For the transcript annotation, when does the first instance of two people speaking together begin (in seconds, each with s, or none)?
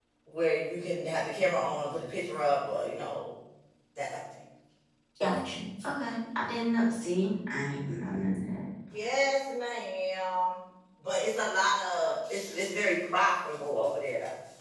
none